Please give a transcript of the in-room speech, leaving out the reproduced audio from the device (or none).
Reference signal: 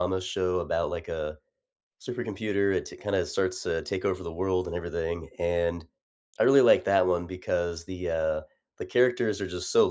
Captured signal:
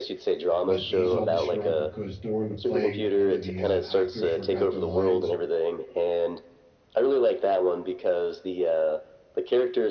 but he's all distraught because during the play, one of the, uh, actors forgot their lines.